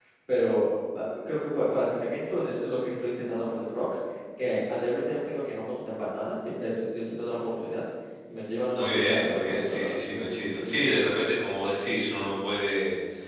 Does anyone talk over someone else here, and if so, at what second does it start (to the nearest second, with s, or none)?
9 s